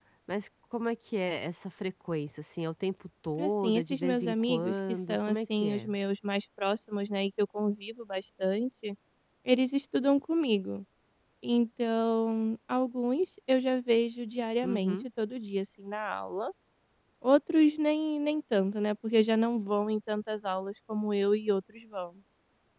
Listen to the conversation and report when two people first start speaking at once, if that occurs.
3.4 s

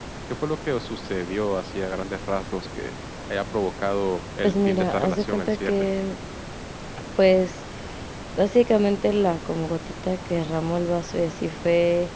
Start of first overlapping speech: 4.4 s

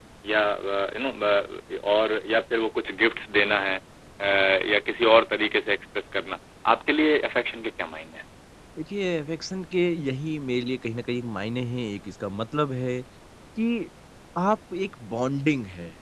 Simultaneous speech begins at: none

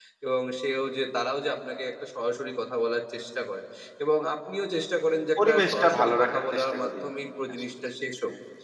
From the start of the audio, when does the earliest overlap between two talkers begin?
5.4 s

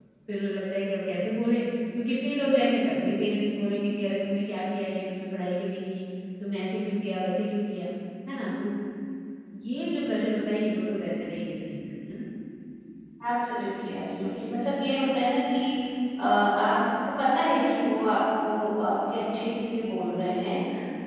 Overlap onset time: none

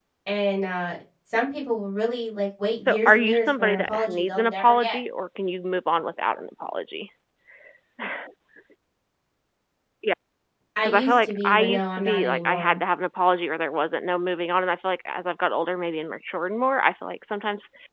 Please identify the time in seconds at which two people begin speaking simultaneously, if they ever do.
2.8 s

